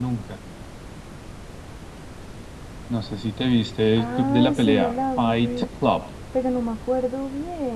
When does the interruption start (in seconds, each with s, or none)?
4.0 s